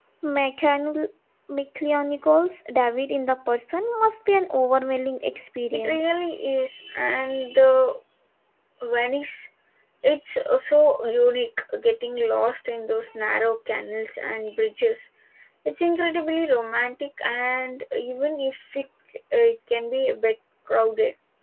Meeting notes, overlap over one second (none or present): none